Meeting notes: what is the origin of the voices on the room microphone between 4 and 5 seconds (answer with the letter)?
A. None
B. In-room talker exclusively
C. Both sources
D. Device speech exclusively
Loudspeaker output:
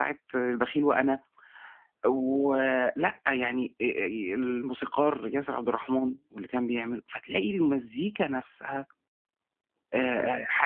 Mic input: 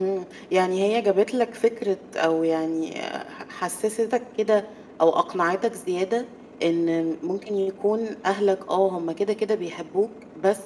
B